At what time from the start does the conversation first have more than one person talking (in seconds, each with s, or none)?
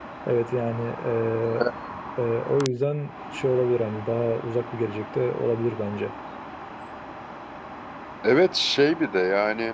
none